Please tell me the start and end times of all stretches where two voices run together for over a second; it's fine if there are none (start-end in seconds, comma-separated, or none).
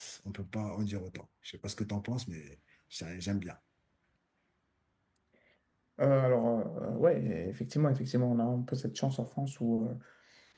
none